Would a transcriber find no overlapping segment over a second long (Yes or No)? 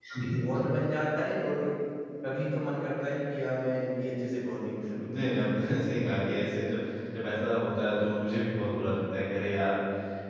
Yes